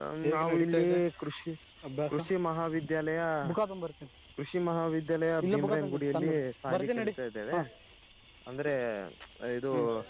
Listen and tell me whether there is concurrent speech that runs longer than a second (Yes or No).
Yes